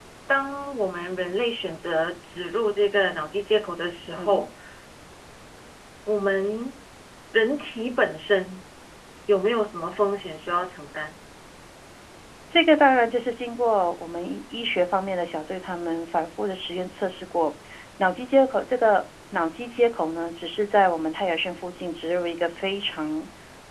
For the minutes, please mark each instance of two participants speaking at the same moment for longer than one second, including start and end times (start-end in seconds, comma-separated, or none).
none